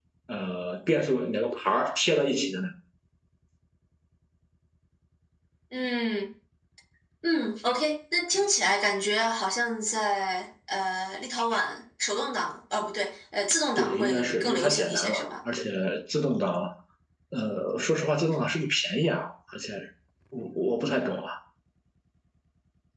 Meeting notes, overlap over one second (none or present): present